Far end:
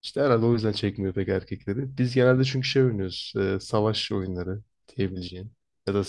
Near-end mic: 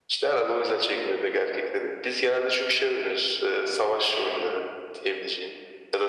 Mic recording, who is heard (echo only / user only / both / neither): echo only